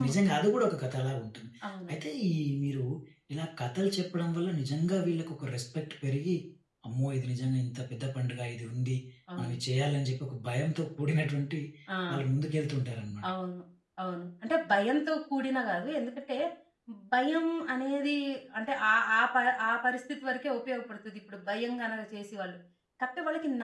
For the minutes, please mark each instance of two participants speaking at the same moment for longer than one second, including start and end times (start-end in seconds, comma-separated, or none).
none